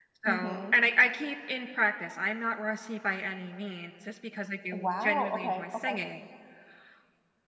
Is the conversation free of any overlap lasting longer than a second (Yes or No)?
No